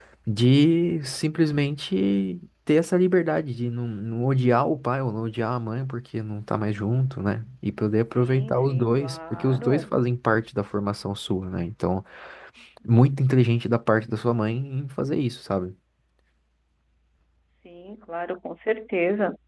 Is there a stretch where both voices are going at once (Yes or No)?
Yes